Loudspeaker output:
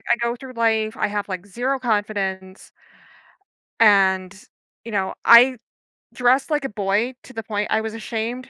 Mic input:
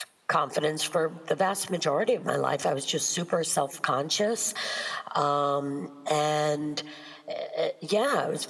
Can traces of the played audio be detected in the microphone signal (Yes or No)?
No